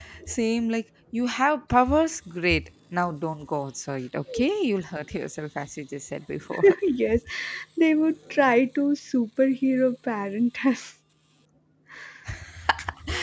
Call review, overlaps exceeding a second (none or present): none